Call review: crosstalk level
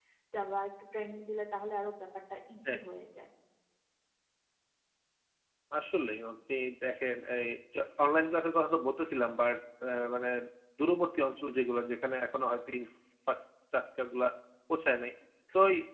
none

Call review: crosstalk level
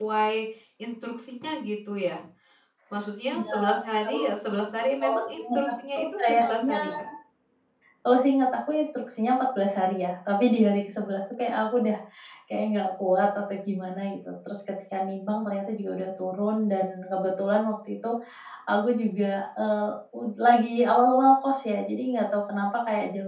present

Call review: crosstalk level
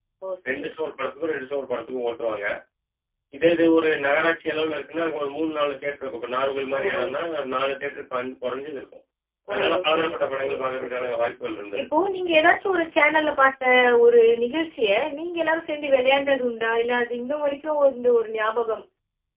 present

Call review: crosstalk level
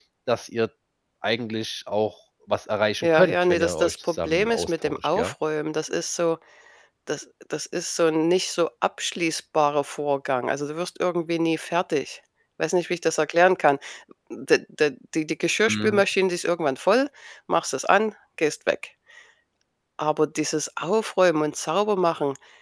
present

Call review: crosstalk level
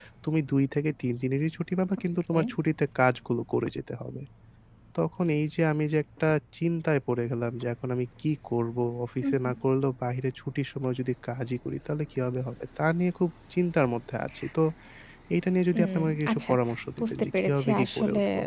present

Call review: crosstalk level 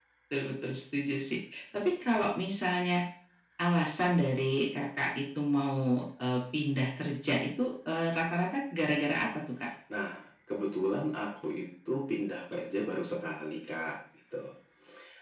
none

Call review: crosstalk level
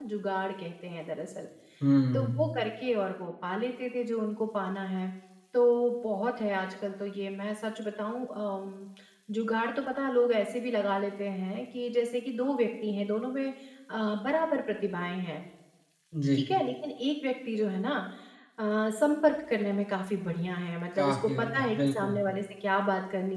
present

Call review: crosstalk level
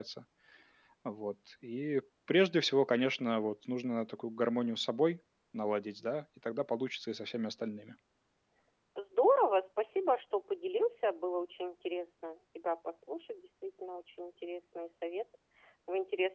none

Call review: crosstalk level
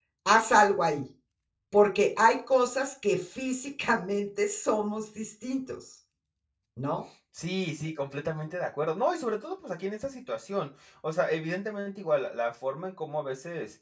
none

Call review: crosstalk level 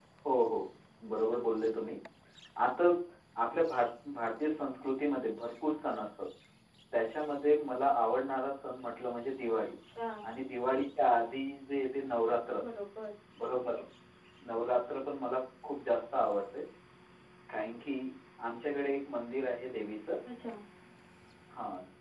none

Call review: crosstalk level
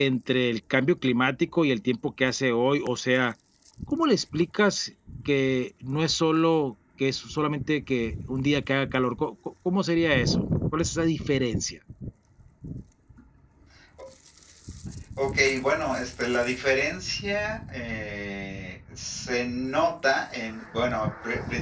none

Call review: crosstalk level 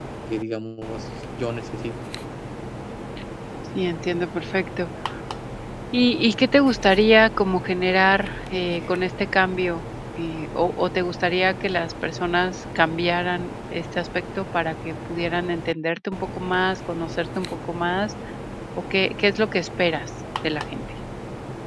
none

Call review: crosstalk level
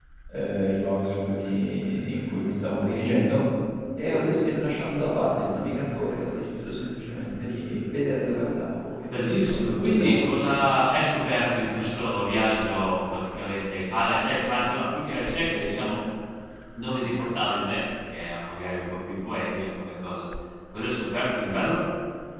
present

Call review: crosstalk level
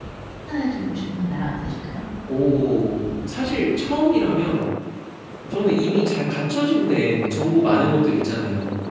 none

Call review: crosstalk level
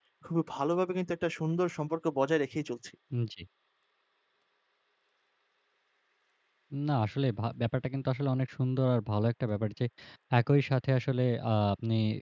none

